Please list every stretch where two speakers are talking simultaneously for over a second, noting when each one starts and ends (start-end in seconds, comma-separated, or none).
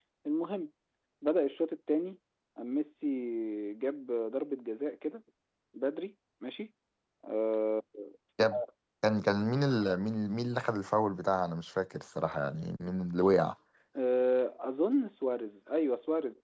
none